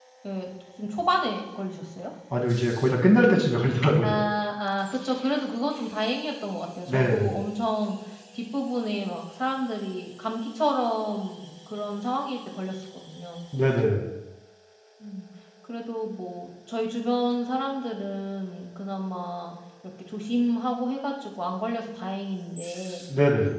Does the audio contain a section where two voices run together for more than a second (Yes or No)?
No